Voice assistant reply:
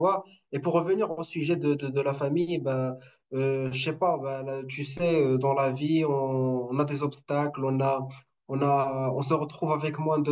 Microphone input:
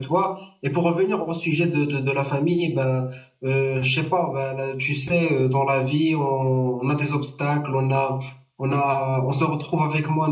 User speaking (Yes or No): No